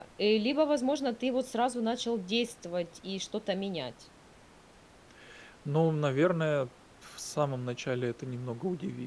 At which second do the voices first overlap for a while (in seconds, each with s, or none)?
none